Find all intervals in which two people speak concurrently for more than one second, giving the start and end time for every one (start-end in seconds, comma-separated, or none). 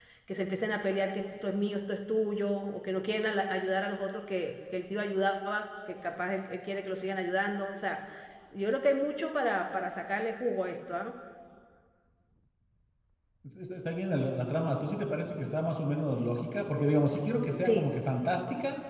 none